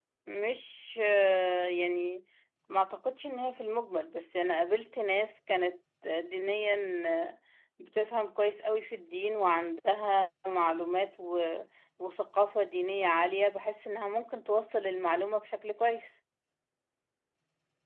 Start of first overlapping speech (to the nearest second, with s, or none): none